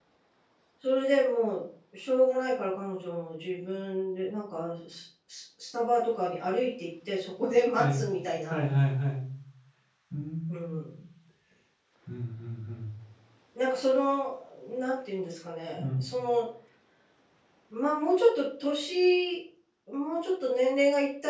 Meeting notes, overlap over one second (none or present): none